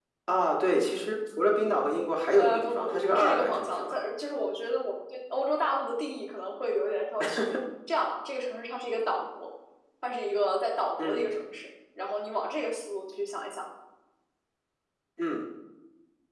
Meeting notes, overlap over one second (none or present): present